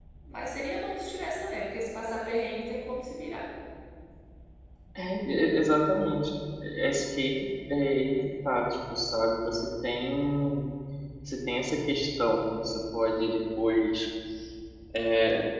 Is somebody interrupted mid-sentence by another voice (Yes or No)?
No